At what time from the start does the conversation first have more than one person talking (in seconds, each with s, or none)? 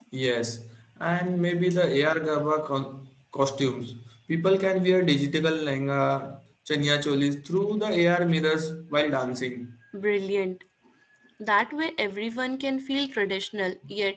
none